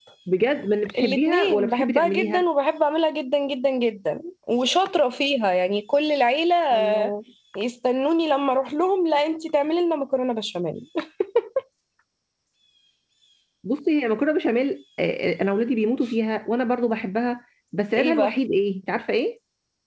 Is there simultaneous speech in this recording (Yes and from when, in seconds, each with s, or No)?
Yes, from 1.0 s